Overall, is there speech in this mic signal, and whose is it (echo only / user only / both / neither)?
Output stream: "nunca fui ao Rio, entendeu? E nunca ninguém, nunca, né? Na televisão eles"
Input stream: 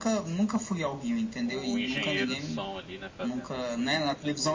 both